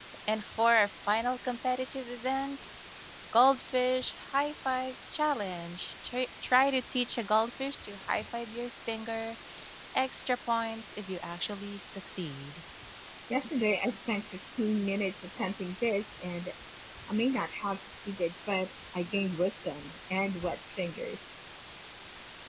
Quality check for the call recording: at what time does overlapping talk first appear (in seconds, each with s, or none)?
none